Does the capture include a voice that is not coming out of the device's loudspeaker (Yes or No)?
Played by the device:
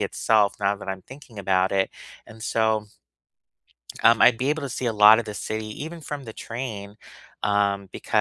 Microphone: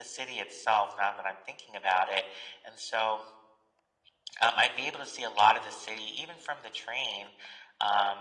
No